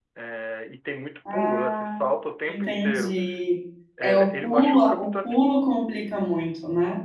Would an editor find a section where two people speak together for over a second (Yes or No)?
Yes